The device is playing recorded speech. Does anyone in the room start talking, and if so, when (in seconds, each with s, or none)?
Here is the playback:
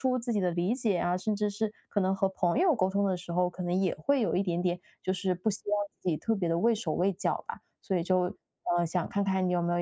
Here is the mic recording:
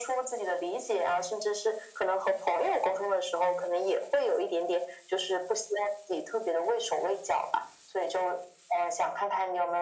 none